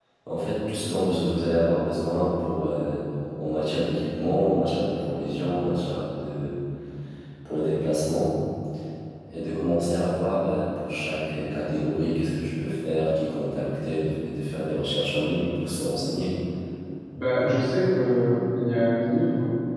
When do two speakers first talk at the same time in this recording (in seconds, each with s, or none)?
none